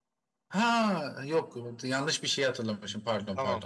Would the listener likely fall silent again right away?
No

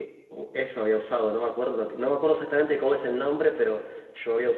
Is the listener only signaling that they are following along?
Yes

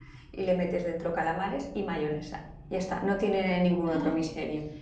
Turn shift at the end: Yes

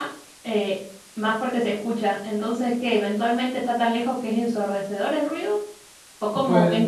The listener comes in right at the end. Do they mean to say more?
No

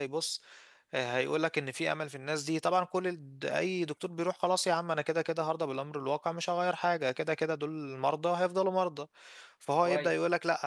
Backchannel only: Yes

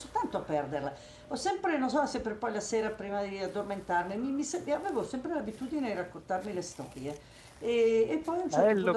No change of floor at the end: Yes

